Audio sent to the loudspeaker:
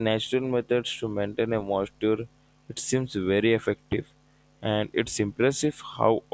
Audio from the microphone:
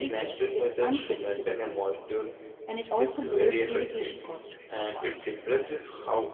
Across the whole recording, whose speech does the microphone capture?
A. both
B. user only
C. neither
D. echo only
A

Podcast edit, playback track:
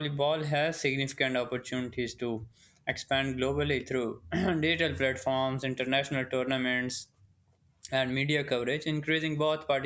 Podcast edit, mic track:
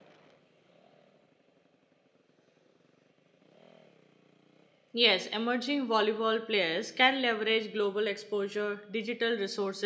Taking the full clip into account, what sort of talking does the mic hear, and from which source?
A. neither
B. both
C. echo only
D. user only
D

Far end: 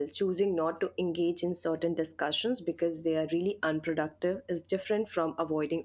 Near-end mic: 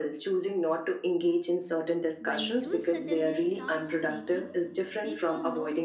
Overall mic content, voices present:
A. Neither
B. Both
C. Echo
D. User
B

